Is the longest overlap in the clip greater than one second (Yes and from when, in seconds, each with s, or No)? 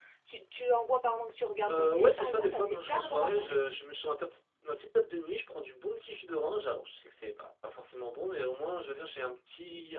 Yes, from 1.7 s